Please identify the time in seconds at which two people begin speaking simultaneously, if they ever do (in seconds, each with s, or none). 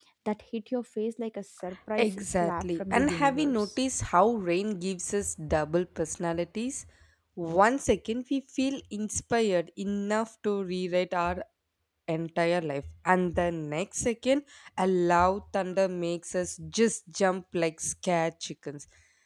2.0 s